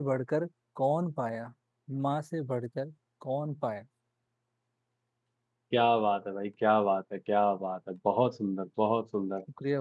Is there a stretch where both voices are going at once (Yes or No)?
No